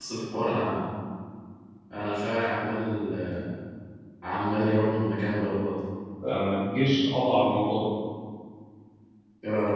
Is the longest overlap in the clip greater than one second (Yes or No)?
No